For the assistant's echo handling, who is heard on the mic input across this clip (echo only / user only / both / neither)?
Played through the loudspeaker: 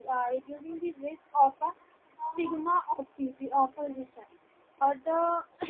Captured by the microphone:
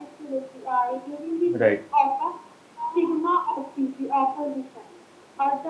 both